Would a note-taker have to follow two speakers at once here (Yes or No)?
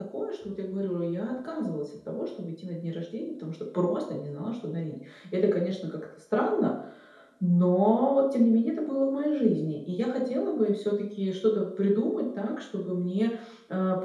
No